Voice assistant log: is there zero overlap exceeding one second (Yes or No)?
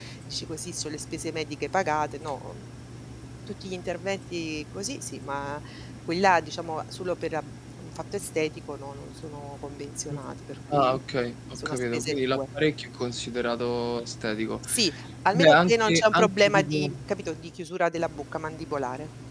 No